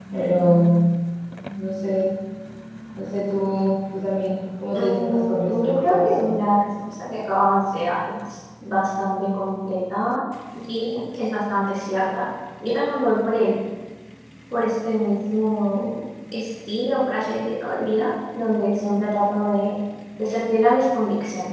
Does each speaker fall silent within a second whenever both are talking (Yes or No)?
No